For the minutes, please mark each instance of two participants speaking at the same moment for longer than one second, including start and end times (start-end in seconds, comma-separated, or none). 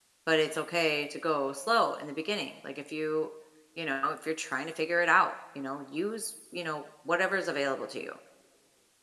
none